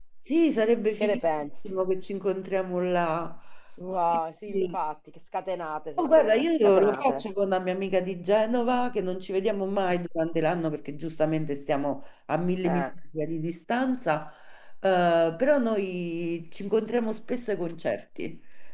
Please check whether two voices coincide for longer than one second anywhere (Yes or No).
Yes